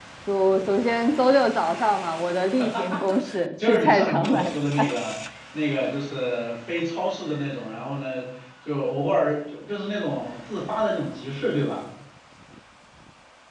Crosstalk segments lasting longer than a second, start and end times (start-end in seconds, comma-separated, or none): 3.6-4.9